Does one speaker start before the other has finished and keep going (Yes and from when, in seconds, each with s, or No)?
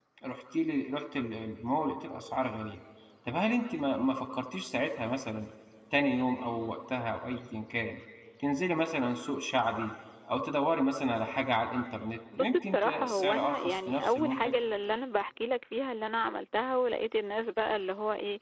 Yes, from 12.3 s